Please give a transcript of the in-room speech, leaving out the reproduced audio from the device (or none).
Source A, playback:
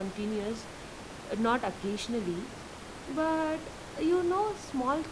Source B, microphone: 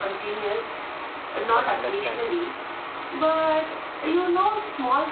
for understanding.